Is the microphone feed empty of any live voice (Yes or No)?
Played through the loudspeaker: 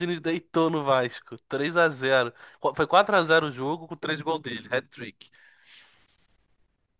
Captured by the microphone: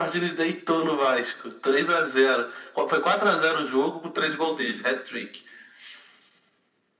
Yes